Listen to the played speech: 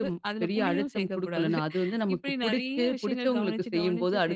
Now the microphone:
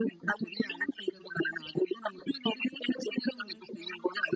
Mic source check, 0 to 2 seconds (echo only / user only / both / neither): echo only